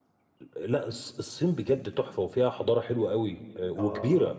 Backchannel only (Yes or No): No